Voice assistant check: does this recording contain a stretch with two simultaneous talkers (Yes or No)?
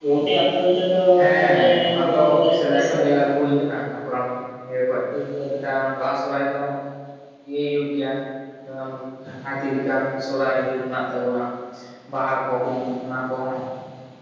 Yes